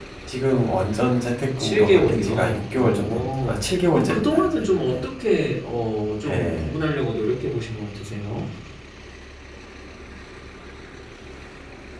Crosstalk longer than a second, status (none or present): present